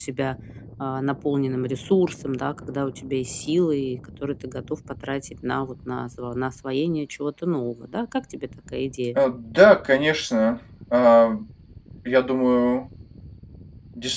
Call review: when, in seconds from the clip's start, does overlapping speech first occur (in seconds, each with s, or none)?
none